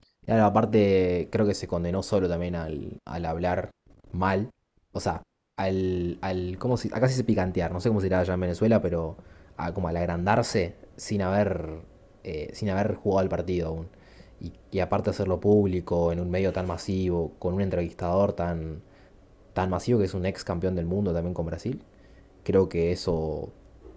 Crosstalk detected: No

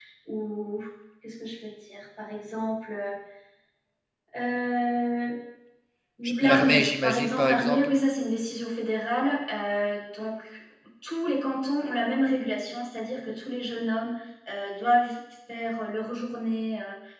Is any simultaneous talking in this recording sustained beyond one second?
Yes, from 6.4 s

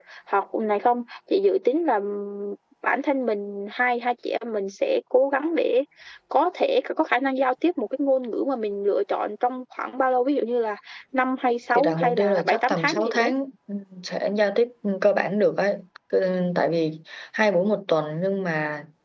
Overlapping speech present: Yes, from 11.8 s

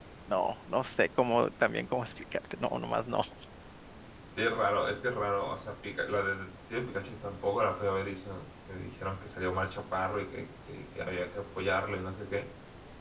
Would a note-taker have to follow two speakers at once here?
No

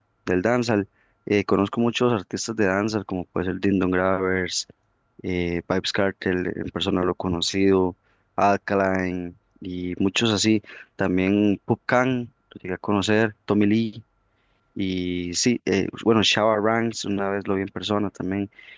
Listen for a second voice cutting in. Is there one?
No

